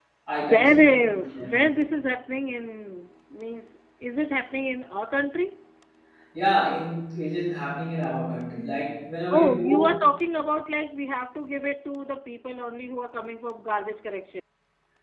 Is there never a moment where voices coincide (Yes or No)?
No